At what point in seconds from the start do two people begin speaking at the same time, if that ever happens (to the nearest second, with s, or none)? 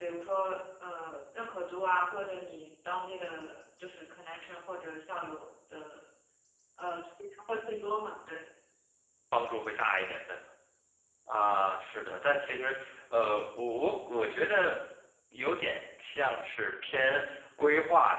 none